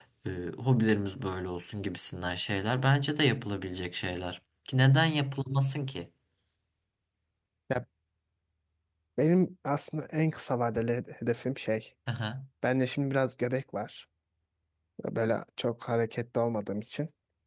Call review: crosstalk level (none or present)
none